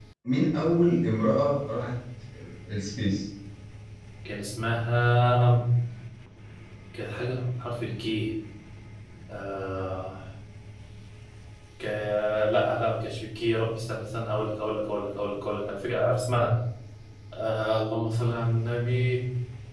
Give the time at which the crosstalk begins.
none

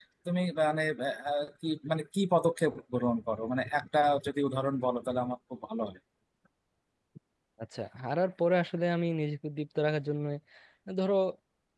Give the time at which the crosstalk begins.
none

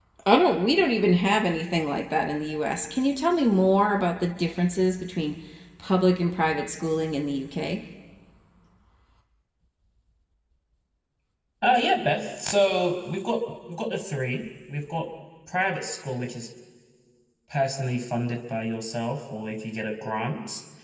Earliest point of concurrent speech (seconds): none

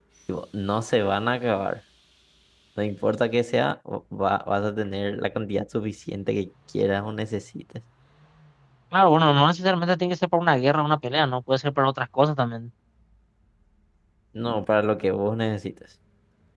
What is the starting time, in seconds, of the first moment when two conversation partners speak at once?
none

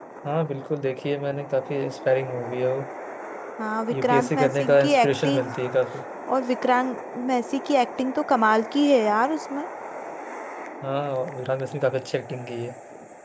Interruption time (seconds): 3.9 s

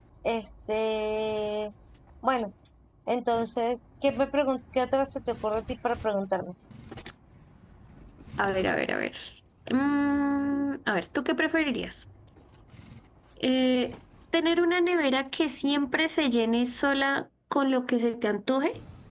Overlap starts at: none

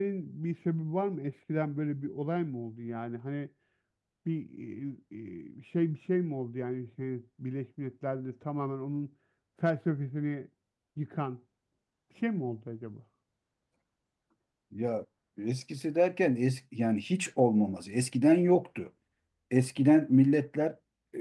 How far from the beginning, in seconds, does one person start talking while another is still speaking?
none

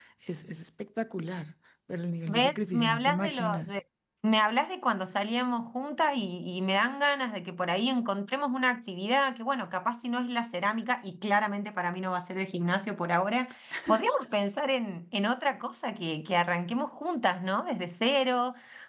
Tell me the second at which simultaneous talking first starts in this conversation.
2.3 s

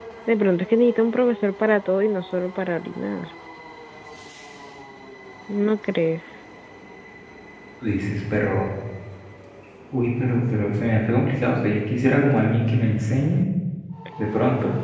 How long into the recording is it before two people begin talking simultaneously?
none

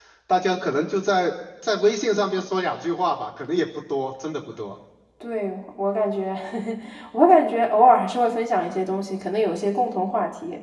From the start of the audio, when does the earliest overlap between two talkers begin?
none

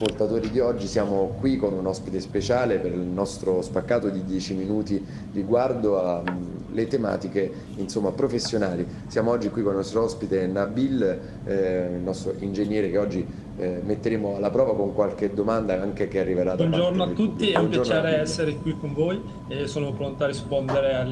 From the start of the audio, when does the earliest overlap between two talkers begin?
16.6 s

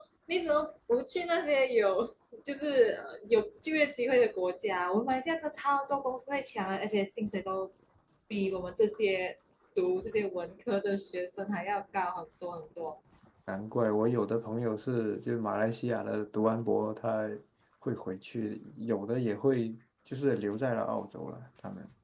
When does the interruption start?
none

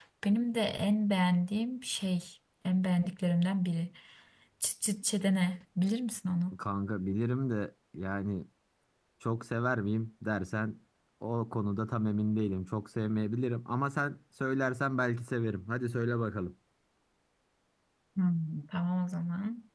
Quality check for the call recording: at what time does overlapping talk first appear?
none

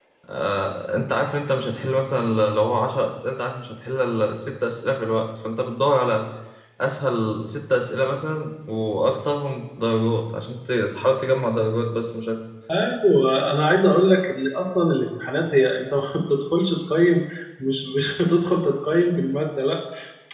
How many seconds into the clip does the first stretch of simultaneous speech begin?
none

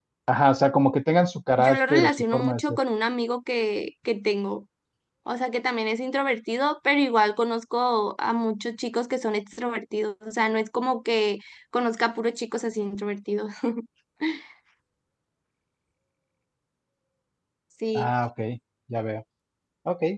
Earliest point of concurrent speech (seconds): 1.6 s

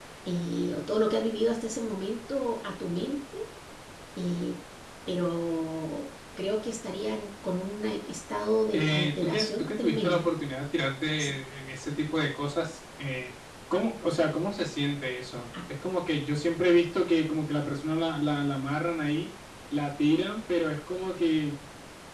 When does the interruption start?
8.7 s

